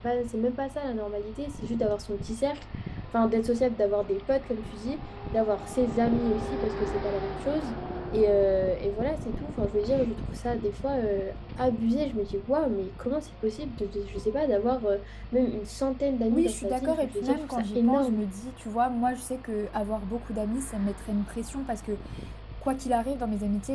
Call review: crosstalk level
present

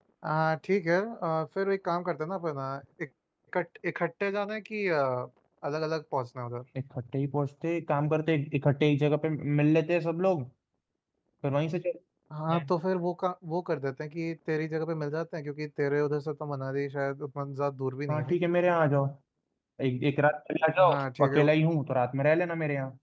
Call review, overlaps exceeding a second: none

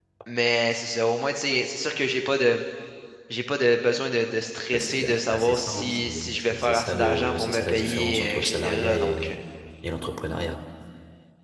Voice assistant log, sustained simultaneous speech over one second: present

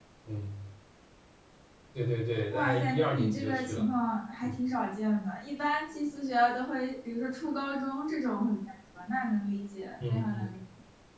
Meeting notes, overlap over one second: present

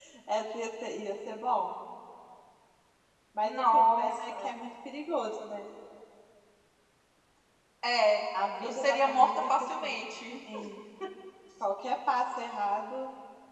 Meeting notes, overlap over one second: present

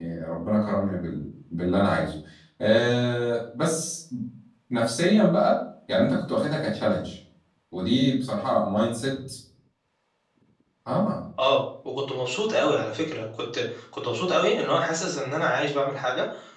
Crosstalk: none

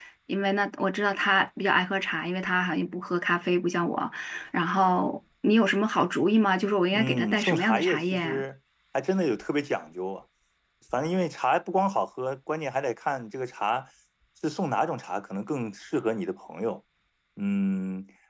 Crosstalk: present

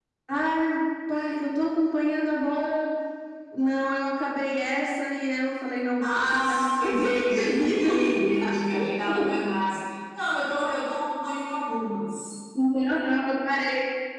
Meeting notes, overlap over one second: present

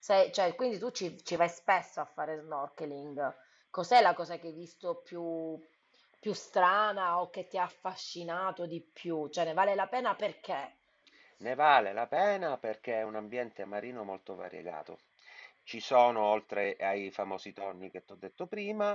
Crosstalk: none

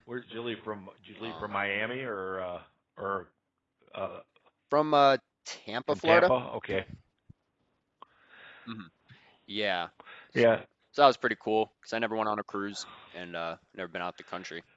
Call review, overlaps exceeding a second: none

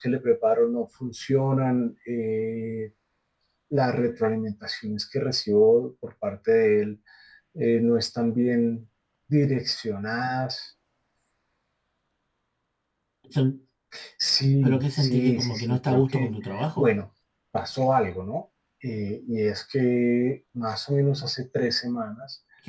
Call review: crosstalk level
present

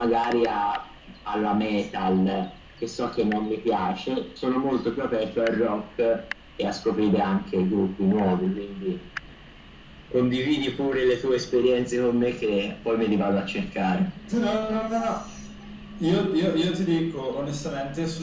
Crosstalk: none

